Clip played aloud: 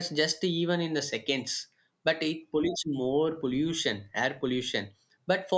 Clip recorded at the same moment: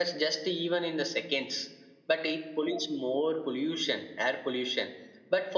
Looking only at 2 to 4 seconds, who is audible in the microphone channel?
echo only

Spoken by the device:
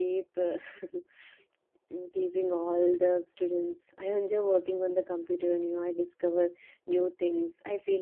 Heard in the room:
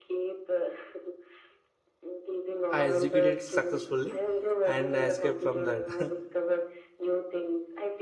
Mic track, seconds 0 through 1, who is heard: echo only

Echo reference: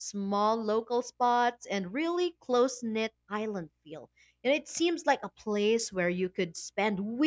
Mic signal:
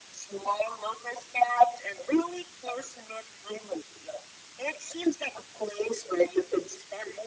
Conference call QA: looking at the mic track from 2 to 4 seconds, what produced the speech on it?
echo only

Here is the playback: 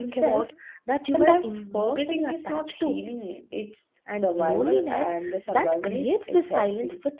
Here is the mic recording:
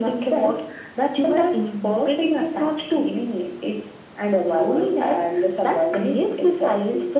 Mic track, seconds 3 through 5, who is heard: echo only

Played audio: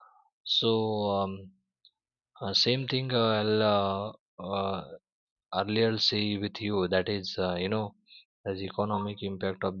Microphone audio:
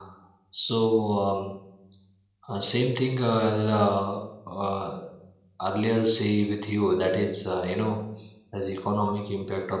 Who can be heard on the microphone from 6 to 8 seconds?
echo only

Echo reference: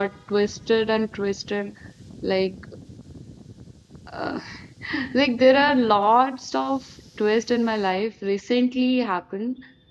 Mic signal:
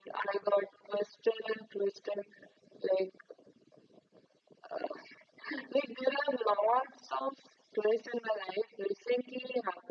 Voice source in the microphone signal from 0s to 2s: echo only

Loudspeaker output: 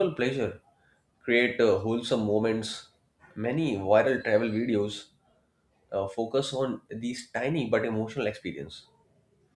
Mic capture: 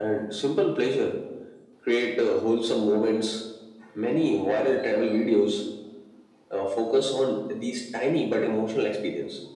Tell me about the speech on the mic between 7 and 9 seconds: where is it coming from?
echo only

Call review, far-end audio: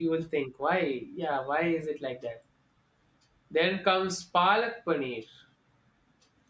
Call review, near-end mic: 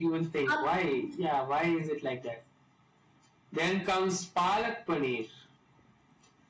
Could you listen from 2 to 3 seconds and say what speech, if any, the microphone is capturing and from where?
echo only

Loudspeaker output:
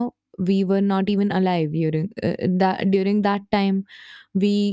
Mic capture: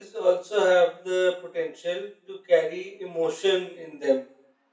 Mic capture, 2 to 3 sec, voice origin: user only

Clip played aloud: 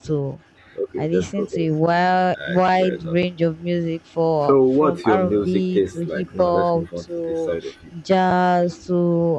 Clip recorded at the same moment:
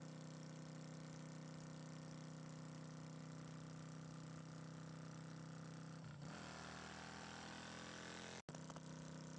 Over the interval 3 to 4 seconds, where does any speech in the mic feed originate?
neither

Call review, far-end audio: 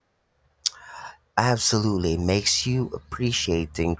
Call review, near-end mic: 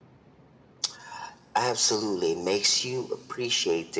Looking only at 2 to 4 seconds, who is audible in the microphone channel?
echo only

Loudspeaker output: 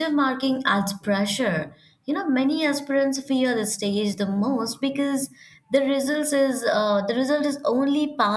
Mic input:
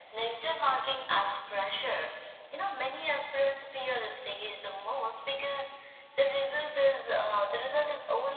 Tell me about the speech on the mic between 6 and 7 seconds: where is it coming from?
echo only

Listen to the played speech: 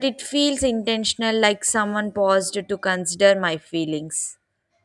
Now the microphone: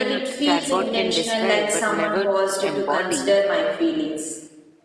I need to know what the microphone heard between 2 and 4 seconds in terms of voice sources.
both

